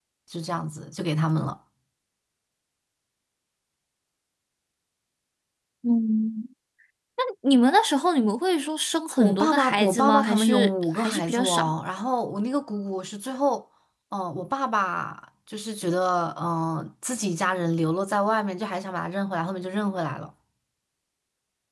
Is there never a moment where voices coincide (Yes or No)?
No